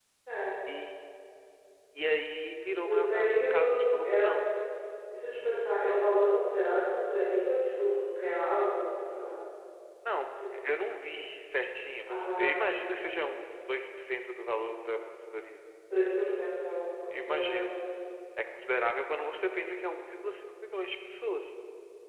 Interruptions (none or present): present